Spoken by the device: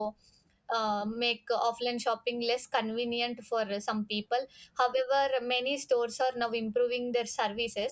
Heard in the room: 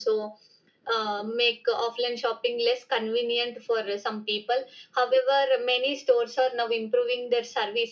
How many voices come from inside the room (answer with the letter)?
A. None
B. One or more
A